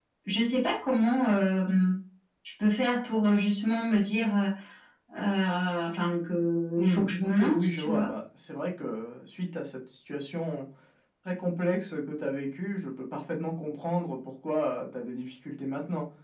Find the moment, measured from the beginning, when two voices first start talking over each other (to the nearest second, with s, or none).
7 s